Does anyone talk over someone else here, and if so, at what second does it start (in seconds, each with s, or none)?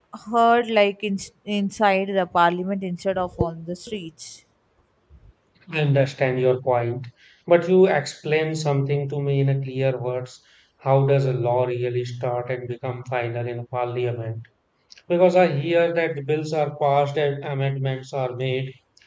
none